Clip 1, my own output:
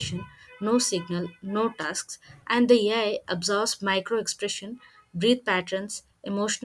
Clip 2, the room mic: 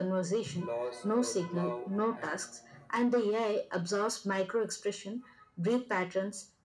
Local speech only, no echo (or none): loss, or love, and